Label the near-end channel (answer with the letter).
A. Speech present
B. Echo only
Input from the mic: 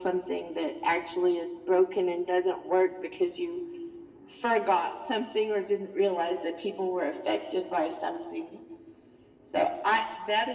B